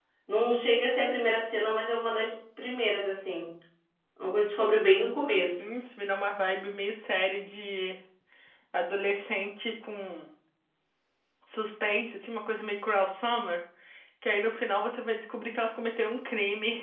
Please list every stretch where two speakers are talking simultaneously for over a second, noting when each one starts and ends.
none

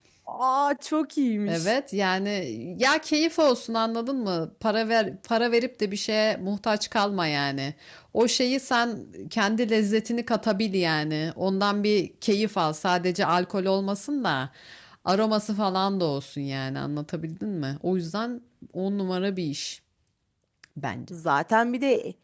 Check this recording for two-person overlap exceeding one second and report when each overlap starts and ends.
none

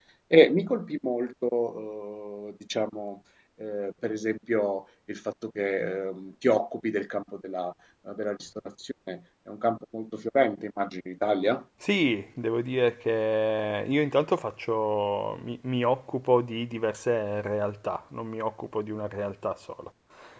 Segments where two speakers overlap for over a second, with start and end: none

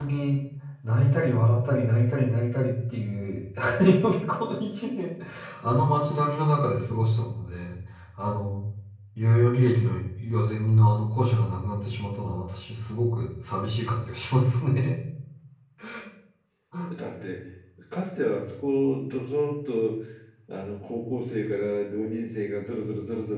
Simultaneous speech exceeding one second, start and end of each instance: none

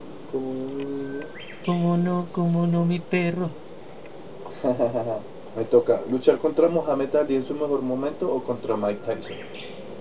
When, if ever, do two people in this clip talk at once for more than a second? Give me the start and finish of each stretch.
none

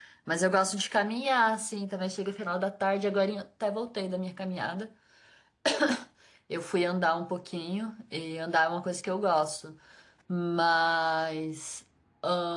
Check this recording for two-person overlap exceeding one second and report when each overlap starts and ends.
none

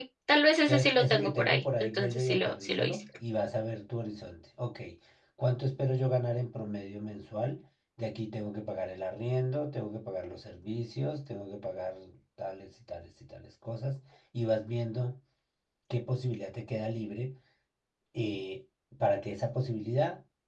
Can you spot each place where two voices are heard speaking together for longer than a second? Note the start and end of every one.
0.6-3.0

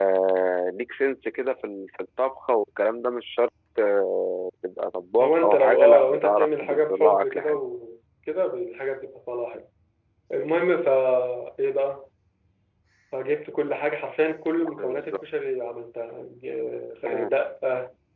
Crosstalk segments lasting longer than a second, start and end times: 5.2-7.6

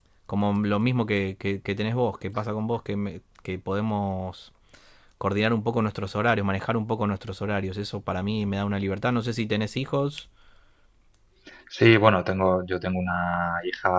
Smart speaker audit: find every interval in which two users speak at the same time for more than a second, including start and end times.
none

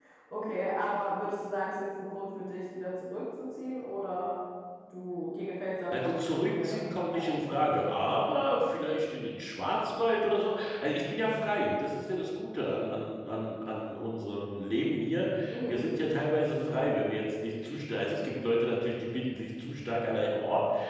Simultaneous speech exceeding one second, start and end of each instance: 5.9-7.8

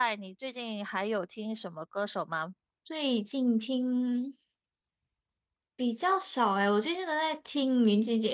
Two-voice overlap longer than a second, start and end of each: none

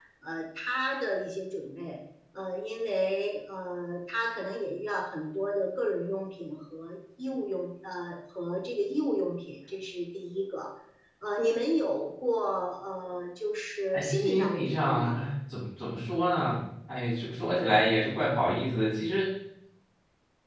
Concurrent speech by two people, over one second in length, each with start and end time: 13.9-15.1

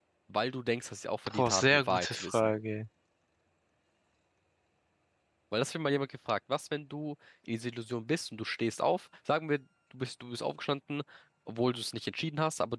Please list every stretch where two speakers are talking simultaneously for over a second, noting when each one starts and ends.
1.3-2.5

